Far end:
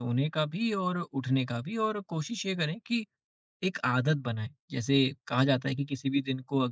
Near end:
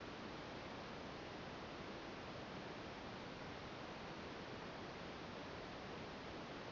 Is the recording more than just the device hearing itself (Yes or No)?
No